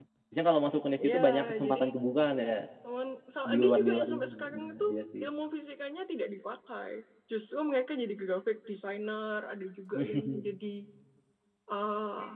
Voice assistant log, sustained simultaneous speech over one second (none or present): present